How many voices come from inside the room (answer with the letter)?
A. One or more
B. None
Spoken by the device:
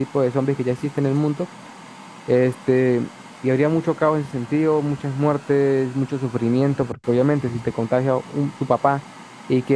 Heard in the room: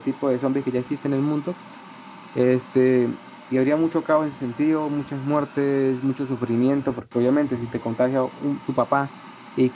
B